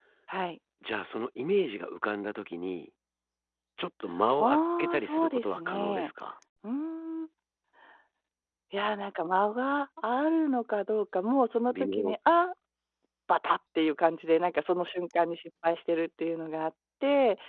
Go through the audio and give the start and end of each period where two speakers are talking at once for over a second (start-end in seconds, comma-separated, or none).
4.4-6.1